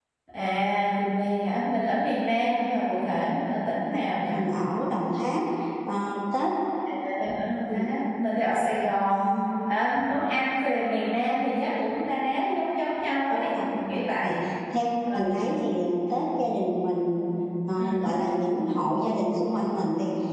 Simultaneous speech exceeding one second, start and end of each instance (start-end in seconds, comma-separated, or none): none